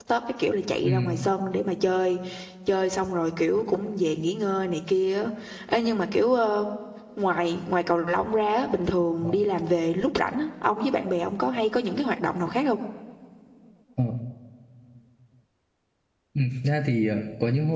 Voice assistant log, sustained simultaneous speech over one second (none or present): none